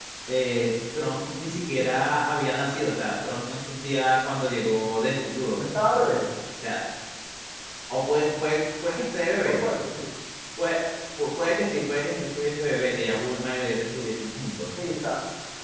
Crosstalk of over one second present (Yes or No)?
No